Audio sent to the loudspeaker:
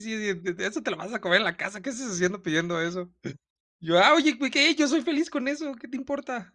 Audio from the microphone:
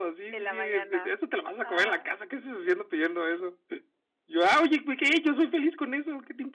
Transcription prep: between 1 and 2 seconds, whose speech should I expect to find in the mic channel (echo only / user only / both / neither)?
both